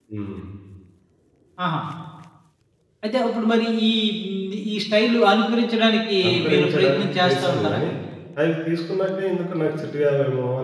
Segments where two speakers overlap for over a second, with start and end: 6.3-7.8

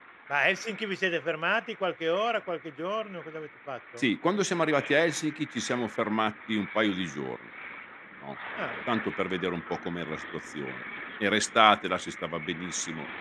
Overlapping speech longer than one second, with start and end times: none

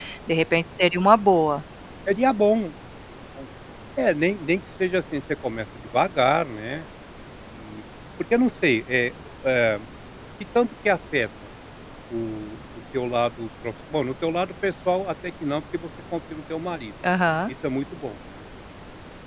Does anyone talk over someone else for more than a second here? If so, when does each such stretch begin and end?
none

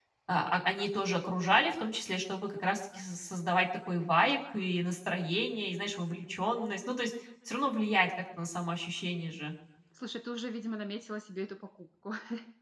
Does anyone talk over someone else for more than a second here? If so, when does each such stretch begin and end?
none

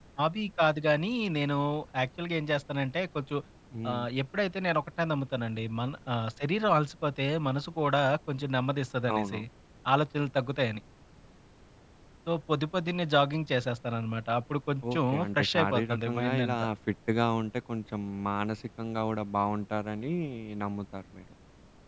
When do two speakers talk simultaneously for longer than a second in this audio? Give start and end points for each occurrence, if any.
14.9-16.7

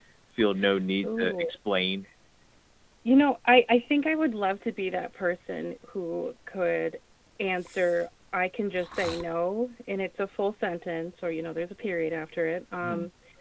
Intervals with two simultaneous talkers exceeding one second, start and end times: none

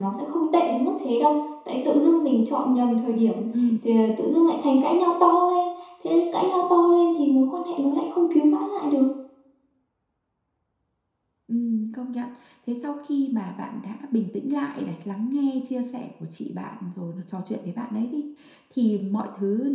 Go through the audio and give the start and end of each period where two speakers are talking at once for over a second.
none

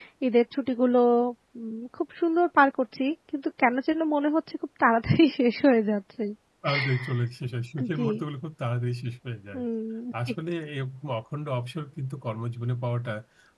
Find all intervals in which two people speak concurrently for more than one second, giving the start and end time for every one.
none

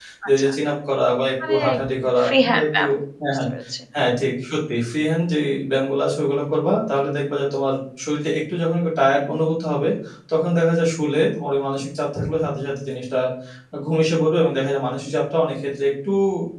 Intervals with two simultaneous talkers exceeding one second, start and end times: 1.5-2.8

